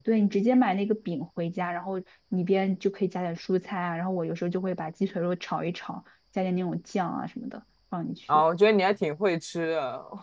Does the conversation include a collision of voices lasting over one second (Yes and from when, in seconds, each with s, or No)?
No